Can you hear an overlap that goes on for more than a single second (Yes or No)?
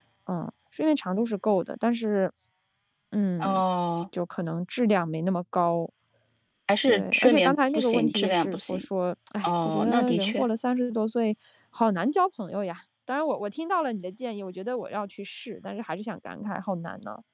Yes